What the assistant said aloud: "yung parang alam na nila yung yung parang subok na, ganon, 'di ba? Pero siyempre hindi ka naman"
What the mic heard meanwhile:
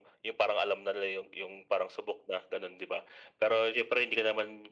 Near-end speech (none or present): none